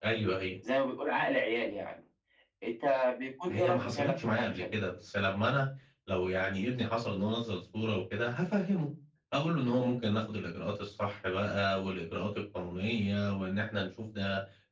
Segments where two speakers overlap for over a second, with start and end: 3.5-4.7

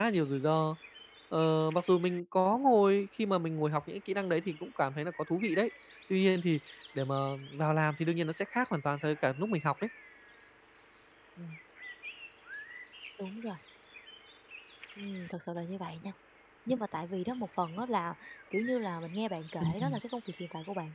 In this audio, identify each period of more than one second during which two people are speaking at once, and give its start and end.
none

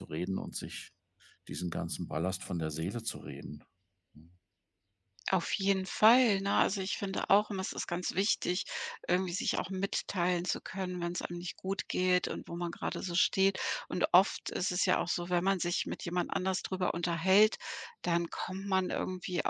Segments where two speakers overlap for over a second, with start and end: none

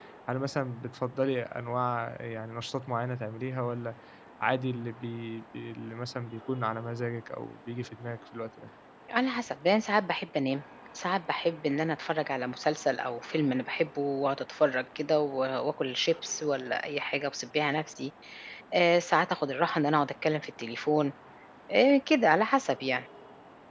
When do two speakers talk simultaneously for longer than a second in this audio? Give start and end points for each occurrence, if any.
none

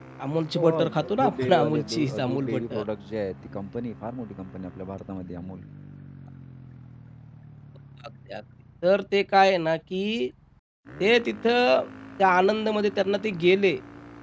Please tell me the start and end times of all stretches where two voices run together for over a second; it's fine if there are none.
0.6-2.8

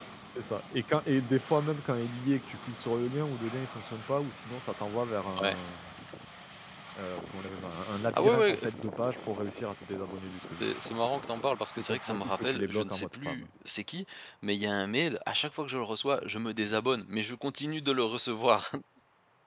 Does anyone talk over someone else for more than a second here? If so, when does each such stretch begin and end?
11.7-13.5

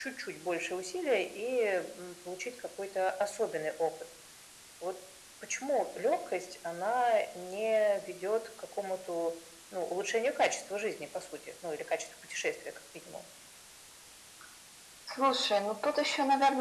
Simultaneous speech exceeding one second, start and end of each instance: none

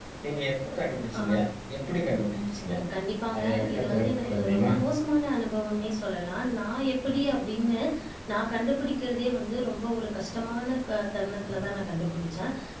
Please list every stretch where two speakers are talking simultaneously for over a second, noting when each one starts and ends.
3.4-4.7

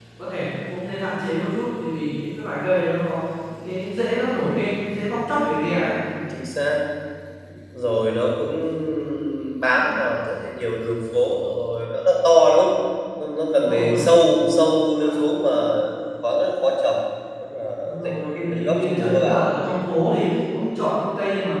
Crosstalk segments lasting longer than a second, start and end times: 18.0-19.4

